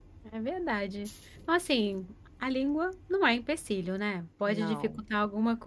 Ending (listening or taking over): listening